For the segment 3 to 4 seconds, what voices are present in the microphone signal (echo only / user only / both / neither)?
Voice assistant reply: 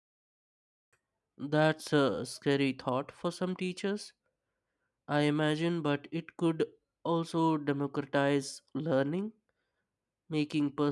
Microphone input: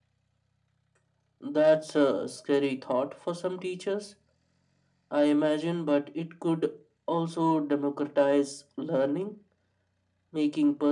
echo only